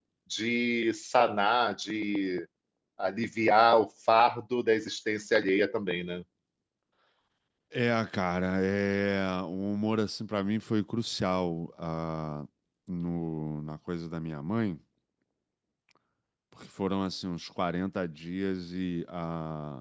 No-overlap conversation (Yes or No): Yes